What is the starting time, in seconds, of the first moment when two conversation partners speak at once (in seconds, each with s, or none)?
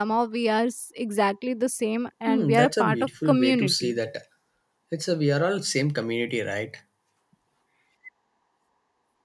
2.3 s